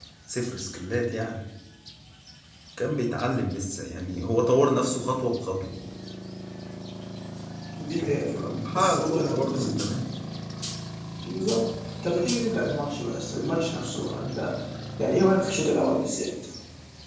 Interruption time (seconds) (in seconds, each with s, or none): 8.0 s